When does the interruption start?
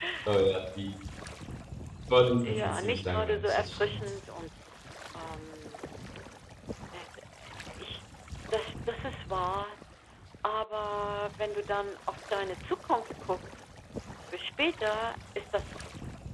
2.4 s

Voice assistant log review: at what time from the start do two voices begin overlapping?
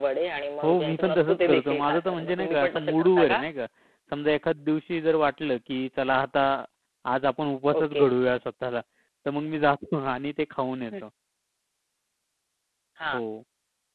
0.6 s

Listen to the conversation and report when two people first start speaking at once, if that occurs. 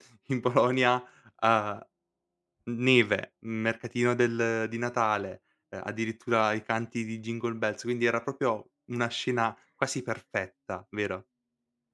none

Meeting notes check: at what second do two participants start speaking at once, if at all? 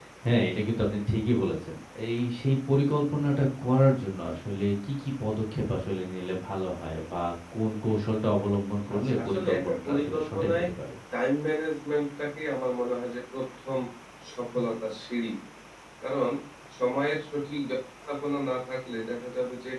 8.9 s

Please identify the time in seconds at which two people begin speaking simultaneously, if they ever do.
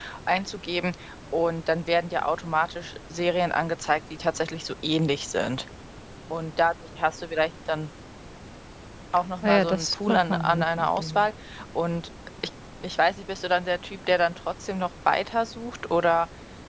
9.4 s

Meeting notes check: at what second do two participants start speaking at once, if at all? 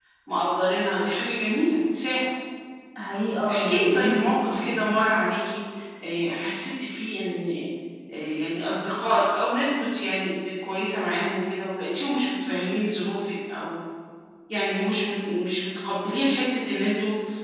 3.5 s

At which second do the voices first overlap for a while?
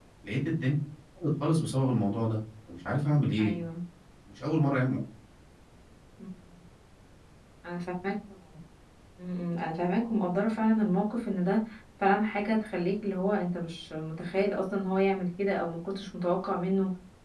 none

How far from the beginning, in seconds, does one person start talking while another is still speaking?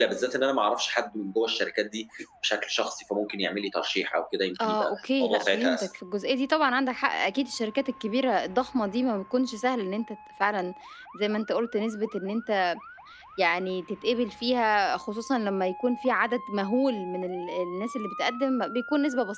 4.6 s

